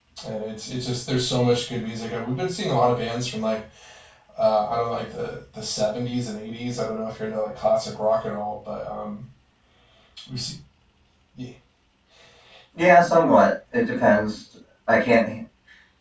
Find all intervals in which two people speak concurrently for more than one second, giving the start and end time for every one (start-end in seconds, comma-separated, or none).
none